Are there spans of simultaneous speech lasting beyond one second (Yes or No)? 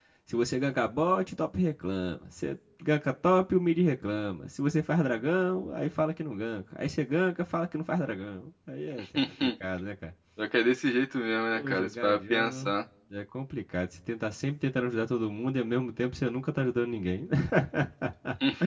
Yes